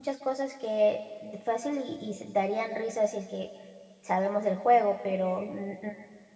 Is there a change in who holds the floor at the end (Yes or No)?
No